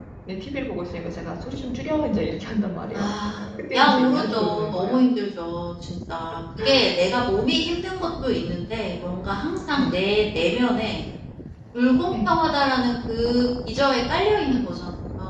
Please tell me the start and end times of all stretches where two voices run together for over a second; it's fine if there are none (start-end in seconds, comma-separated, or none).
3.7-5.0